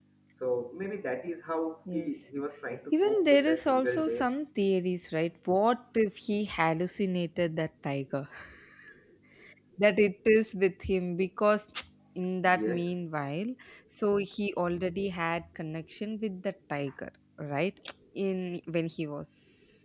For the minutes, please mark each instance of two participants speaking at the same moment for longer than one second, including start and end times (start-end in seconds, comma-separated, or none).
2.9-4.3